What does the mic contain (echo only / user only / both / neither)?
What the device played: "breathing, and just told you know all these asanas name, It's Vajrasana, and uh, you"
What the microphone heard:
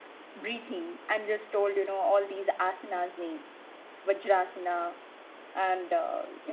echo only